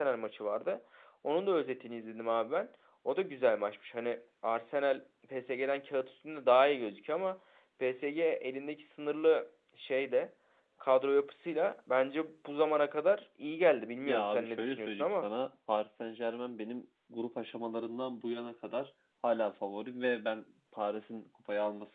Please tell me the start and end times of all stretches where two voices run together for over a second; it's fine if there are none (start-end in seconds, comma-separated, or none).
14.0-15.3